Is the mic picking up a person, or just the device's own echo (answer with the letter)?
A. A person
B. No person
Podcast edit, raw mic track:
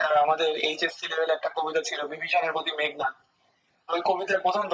B